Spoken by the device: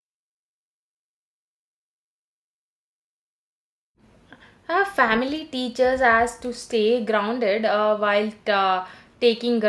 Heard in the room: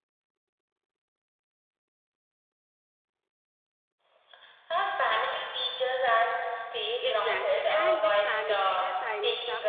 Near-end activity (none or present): present